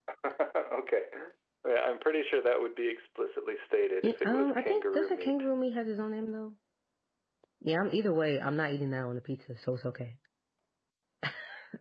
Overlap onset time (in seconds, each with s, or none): 4.0 s